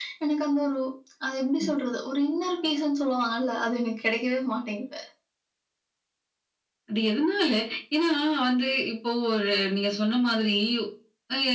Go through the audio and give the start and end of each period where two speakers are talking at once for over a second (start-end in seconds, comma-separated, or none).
none